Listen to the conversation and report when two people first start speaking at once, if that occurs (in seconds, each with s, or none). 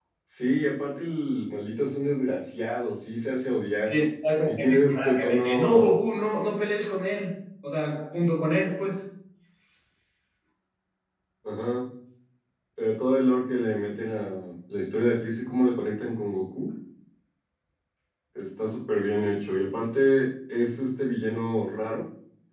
4.5 s